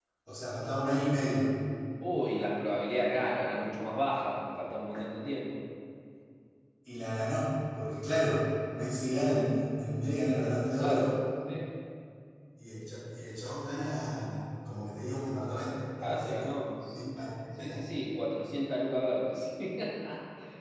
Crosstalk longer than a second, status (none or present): none